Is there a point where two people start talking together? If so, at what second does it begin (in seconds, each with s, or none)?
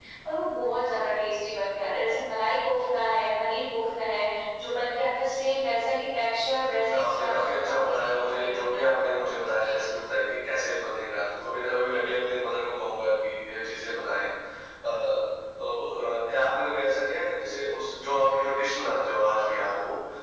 6.4 s